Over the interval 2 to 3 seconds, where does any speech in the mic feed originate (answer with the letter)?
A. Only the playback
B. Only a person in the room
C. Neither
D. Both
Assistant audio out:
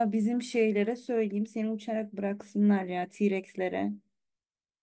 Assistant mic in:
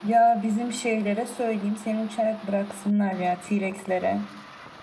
A